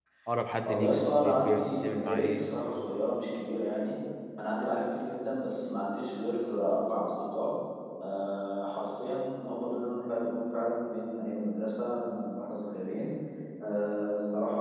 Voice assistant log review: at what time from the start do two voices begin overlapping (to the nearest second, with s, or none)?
1 s